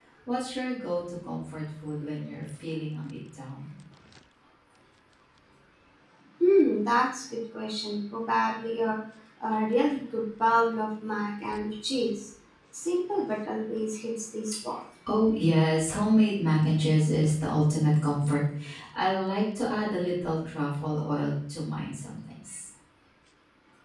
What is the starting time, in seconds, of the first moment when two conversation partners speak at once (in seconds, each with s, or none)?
none